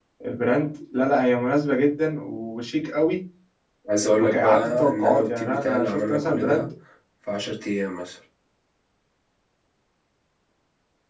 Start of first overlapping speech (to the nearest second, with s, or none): 4 s